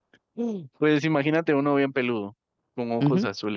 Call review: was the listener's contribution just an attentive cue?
No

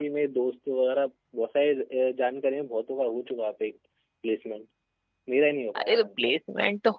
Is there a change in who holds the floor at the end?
Yes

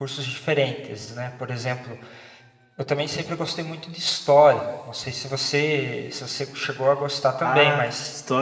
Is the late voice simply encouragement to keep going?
No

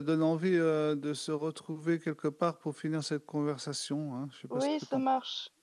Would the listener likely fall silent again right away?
No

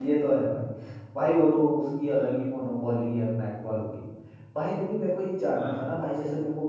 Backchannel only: Yes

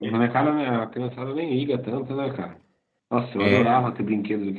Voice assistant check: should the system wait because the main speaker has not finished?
Yes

